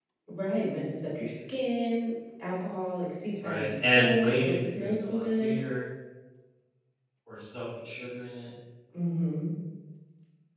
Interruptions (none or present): present